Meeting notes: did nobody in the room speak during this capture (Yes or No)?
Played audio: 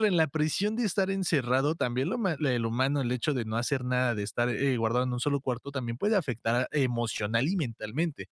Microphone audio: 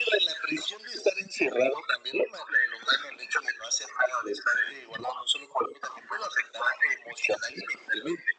Yes